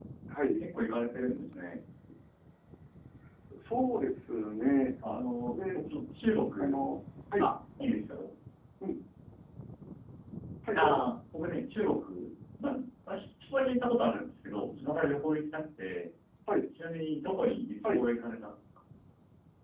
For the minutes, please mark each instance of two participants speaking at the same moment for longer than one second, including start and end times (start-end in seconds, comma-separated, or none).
none